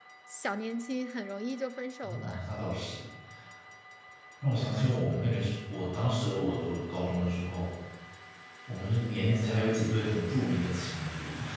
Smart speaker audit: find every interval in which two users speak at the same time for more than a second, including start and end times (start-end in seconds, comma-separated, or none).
none